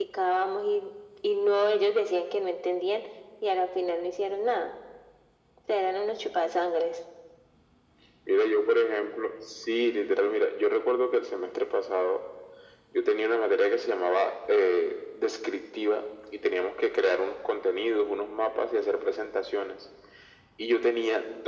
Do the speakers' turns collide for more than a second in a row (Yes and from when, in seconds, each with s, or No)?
No